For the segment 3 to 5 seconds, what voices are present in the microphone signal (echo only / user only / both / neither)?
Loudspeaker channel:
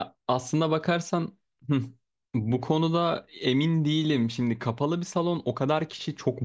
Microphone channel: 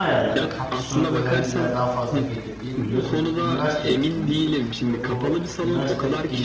both